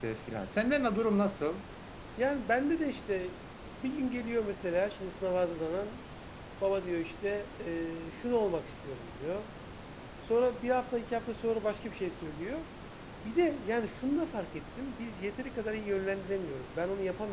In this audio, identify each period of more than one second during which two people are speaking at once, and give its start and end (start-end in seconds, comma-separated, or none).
none